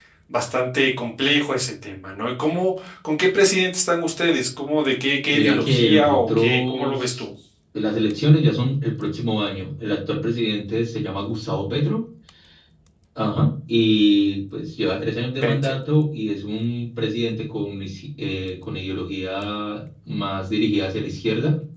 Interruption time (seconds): 5.2 s

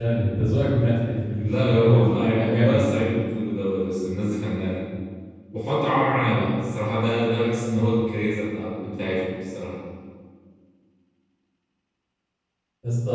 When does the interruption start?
1.4 s

